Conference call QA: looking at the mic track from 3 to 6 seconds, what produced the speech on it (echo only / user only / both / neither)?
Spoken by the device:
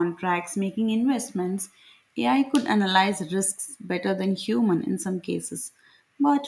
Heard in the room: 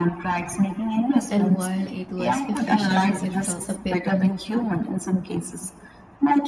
both